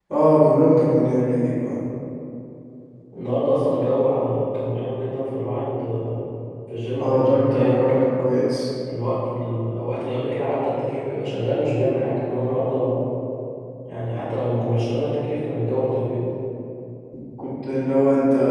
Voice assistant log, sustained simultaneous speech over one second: present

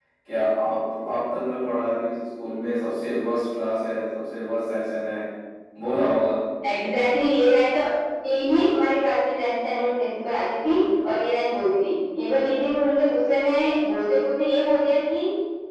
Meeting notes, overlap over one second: none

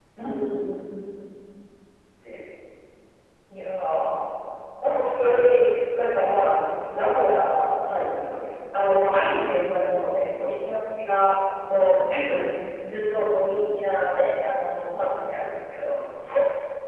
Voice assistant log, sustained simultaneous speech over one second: none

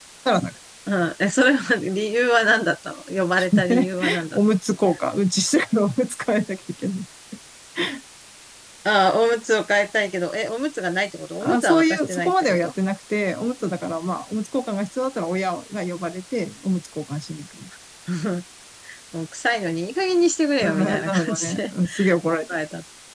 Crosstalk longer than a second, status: present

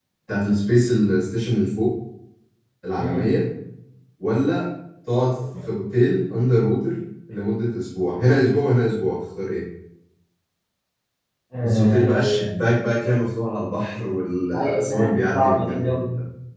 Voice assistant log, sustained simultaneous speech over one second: present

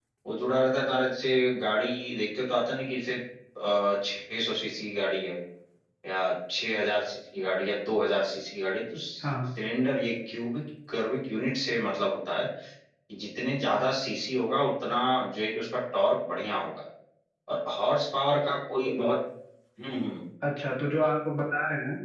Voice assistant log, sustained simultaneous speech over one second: none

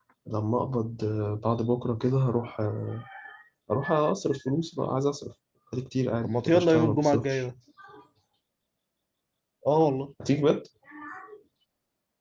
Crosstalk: present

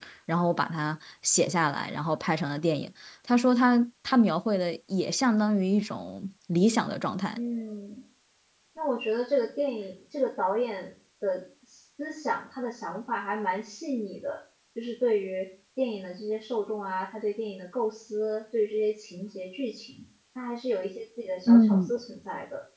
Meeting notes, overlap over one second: none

